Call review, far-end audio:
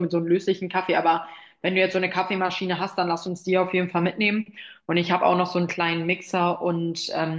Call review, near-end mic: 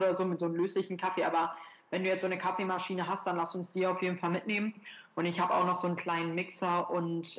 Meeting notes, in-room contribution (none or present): none